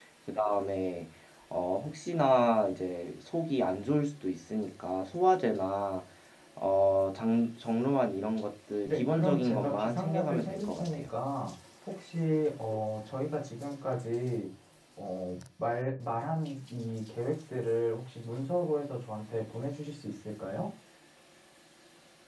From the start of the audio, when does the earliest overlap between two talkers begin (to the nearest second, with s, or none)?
9 s